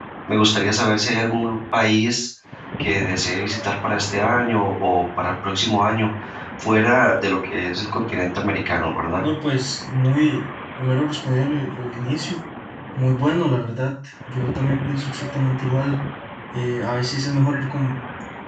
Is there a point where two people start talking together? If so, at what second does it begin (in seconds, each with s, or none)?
none